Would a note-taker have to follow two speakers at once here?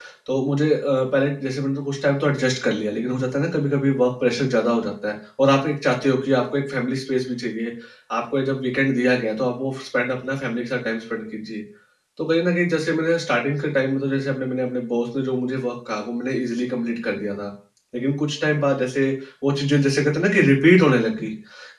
No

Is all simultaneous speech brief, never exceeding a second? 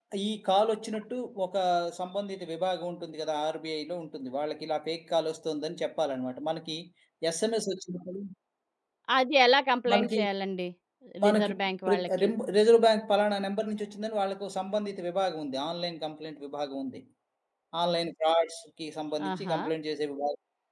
Yes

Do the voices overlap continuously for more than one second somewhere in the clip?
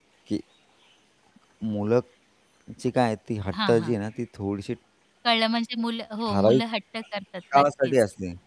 No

